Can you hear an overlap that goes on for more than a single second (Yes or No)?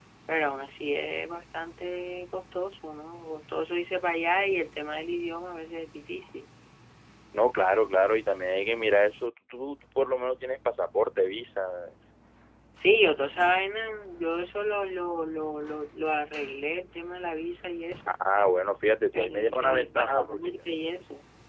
Yes